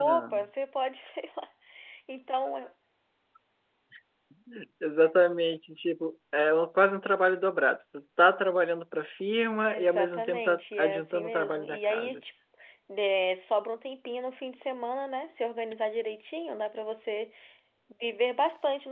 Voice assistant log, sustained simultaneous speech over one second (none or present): present